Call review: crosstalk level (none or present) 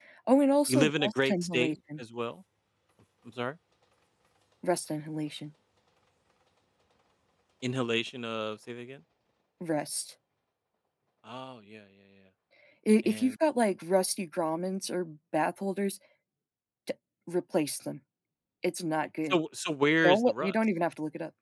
present